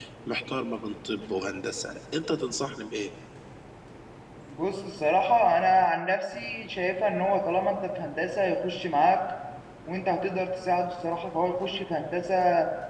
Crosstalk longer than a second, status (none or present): none